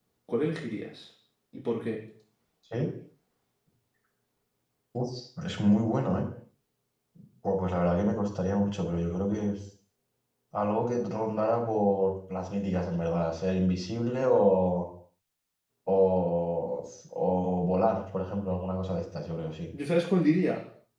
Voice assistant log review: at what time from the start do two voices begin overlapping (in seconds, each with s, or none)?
none